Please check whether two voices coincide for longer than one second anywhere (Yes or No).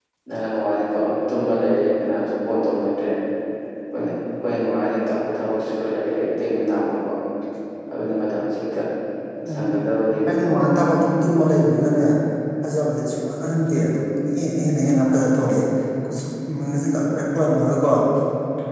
No